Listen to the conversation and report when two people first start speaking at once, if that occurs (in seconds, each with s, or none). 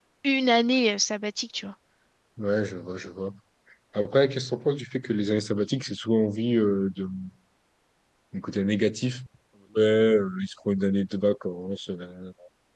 none